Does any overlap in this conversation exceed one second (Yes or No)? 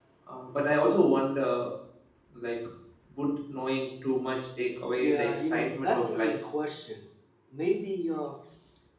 Yes